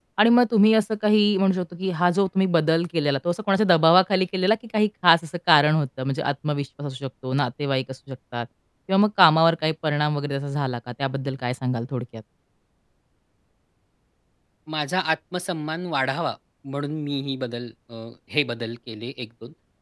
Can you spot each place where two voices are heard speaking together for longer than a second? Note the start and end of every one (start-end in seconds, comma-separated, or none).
none